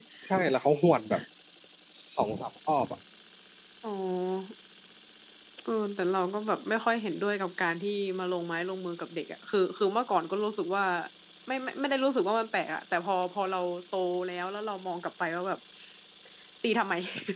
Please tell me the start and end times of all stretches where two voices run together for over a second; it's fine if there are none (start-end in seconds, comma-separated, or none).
none